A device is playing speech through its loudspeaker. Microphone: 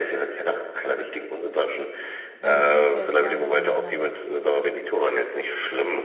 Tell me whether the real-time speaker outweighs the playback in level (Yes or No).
No